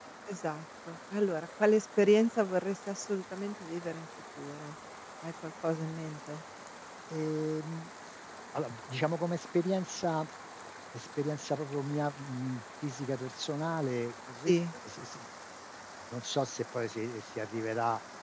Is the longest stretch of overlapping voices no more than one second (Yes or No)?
Yes